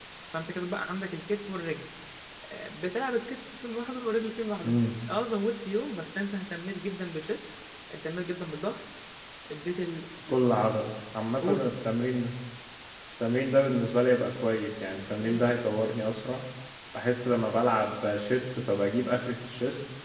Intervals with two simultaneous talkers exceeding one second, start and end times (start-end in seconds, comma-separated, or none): none